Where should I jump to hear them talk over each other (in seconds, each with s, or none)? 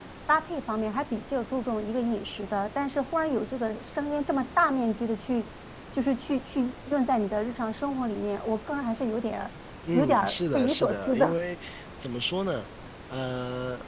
9.9 s